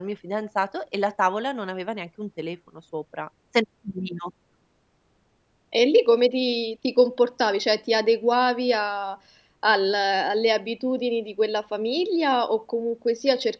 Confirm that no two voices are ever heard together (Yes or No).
Yes